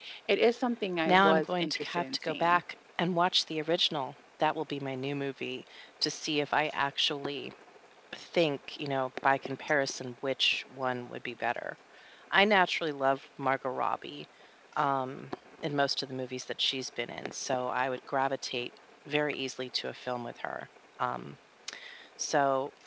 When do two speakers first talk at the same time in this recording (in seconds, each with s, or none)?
1.1 s